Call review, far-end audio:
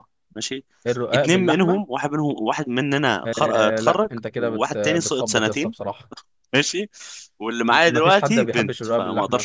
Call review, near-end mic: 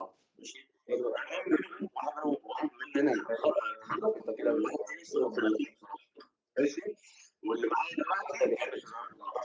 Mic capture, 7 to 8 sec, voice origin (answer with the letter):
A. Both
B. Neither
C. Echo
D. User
C